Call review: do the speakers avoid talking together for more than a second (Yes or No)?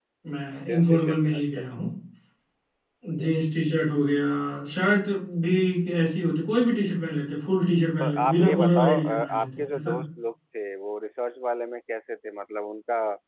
No